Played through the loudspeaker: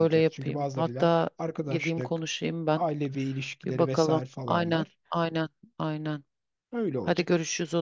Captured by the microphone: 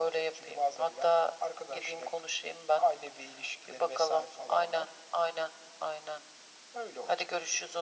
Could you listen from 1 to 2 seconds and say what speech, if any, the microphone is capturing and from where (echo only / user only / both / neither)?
echo only